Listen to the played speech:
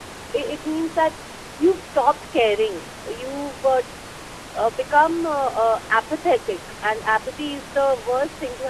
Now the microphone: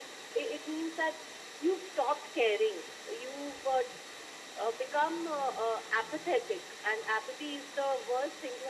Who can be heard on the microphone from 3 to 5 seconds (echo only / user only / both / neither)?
echo only